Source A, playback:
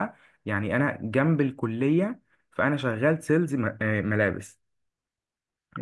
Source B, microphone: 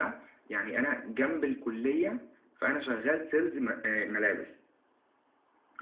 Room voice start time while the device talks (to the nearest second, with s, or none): none